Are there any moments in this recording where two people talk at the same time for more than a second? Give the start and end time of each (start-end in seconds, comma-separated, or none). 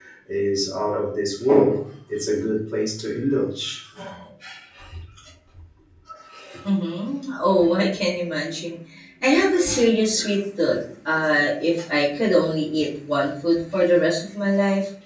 none